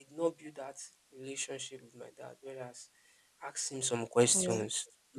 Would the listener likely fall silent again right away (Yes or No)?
Yes